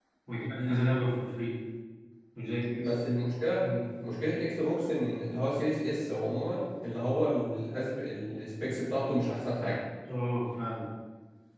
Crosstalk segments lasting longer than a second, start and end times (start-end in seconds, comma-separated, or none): none